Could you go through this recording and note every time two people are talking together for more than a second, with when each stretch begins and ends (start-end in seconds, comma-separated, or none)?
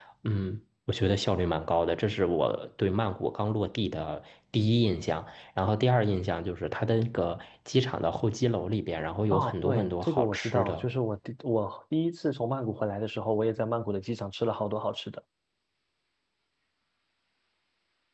9.3-10.9